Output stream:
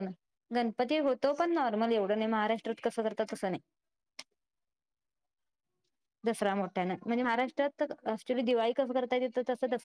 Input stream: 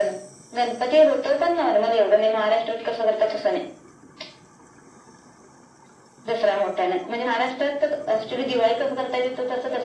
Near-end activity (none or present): none